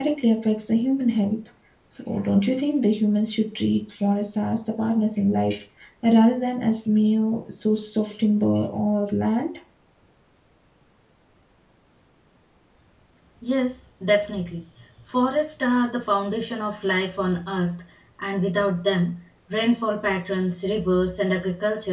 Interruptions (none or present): none